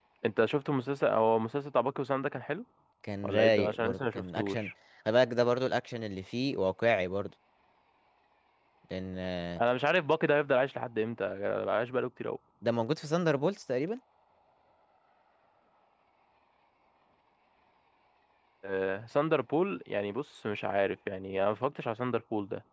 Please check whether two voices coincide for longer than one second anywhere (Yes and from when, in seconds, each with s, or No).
Yes, from 3.2 s